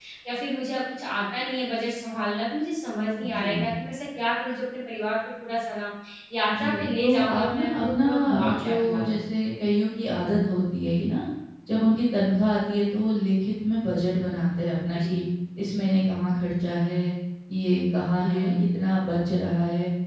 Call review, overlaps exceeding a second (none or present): present